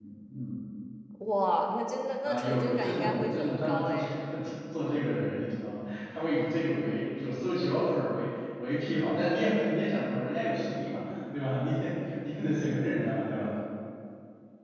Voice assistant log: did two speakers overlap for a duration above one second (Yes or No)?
Yes